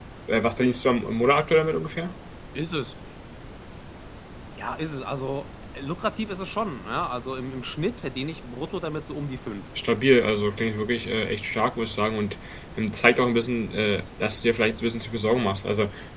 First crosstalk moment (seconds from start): none

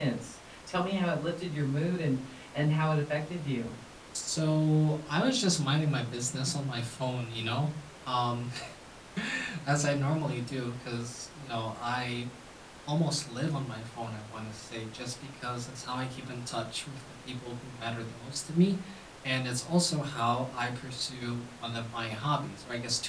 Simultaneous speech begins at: none

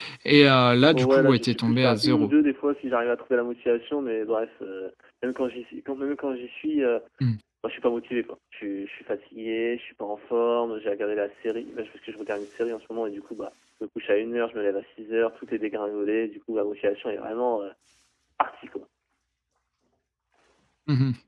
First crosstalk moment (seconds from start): 0.9 s

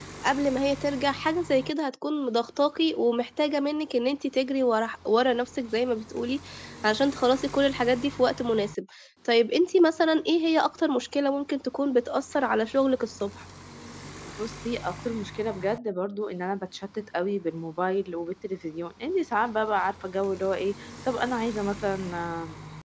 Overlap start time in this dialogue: none

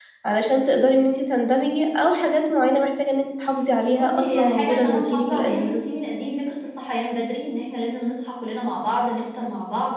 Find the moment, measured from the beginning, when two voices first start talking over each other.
3.9 s

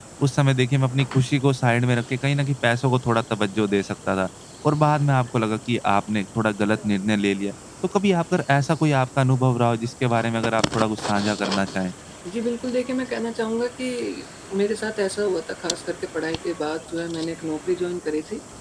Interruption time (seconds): none

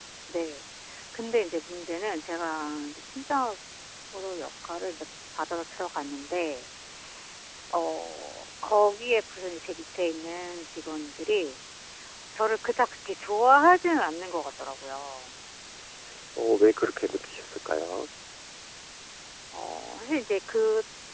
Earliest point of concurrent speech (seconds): none

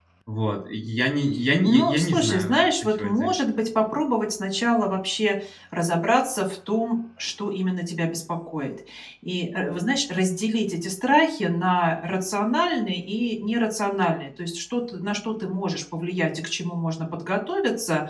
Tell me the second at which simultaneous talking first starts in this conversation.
1.6 s

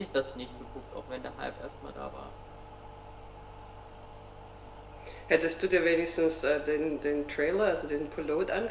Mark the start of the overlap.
none

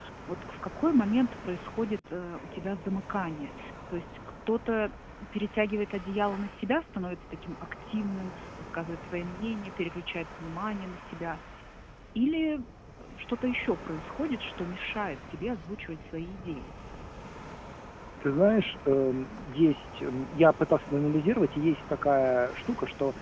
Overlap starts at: none

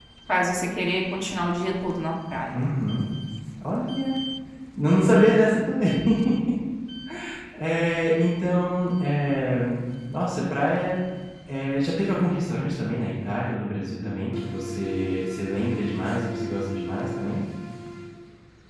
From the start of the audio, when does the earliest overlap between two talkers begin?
none

